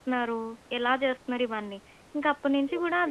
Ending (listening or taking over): listening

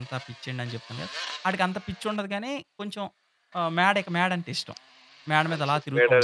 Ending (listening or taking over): taking over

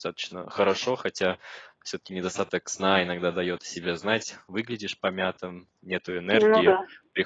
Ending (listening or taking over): listening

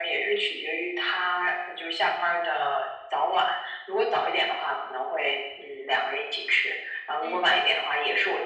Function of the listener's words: listening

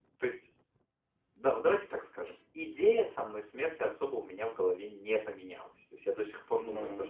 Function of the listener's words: listening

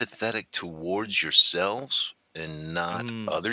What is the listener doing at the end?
listening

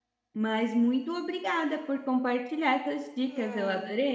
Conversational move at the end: taking over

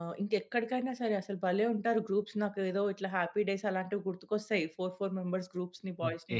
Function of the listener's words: taking over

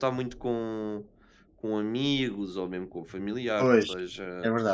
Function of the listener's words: taking over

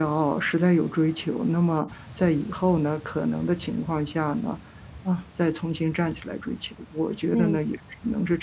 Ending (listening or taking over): listening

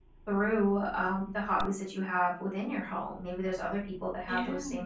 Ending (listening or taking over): listening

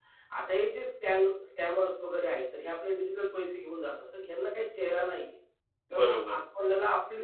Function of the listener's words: listening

